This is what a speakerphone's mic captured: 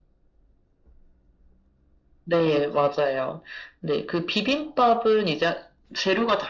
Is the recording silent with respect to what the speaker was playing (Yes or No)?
No